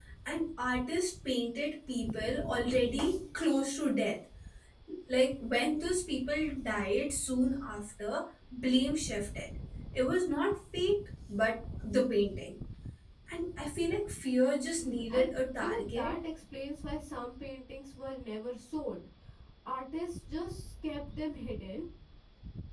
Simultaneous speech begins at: 14.8 s

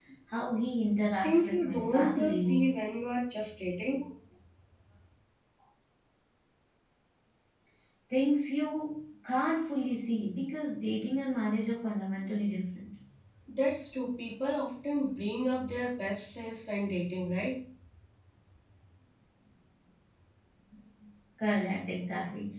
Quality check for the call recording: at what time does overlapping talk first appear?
1.2 s

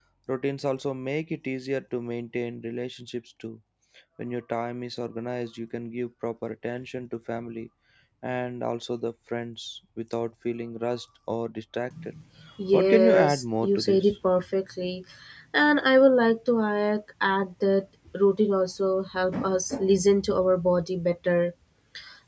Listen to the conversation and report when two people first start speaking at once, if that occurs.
12.7 s

